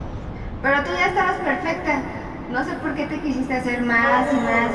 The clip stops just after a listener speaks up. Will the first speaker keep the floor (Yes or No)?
No